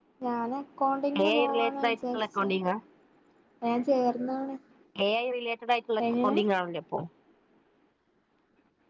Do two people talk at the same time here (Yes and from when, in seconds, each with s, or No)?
Yes, from 1.2 s